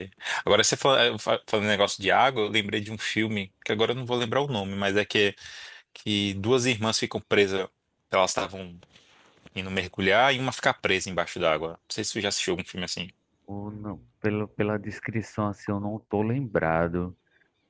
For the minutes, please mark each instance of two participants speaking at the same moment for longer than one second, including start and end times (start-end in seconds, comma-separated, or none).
none